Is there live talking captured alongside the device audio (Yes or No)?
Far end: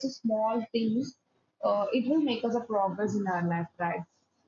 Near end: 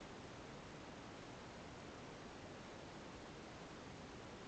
No